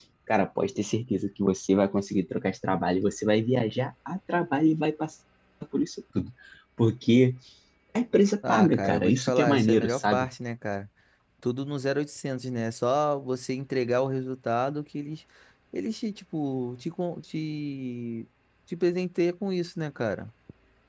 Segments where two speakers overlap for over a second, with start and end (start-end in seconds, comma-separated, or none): 8.5-10.3